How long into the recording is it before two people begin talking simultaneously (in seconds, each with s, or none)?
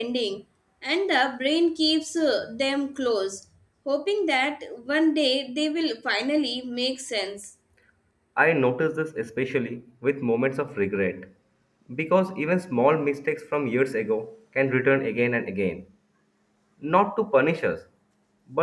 none